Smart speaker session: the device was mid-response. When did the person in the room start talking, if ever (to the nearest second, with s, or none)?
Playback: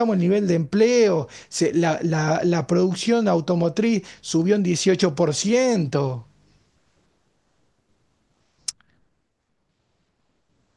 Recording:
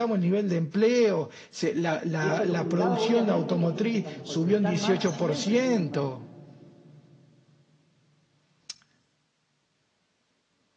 2 s